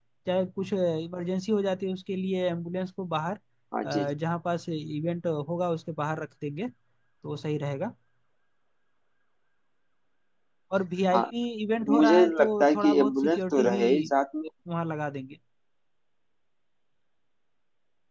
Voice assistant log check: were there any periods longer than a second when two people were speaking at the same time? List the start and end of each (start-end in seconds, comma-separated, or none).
11.9-13.8